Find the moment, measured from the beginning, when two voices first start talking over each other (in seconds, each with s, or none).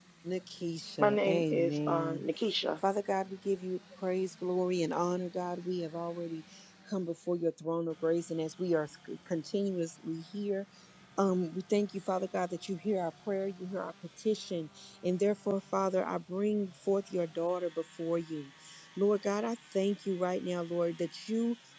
1.0 s